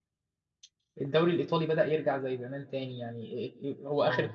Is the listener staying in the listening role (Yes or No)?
Yes